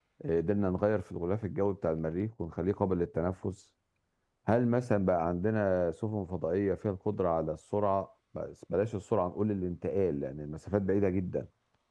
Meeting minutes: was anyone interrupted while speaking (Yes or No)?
No